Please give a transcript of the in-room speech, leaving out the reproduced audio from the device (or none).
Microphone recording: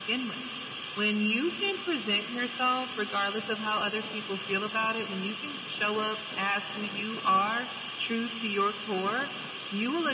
none